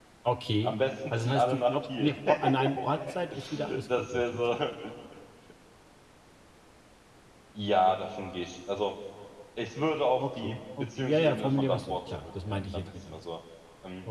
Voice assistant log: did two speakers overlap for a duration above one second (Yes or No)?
Yes